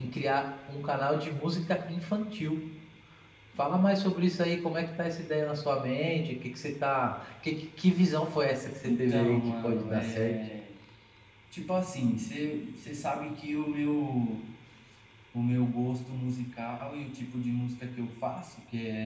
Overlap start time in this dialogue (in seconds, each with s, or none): 8.8 s